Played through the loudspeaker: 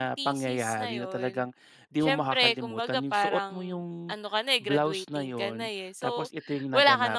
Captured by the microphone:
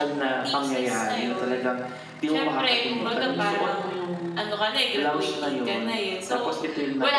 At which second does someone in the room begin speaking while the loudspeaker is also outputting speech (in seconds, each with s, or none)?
3.0 s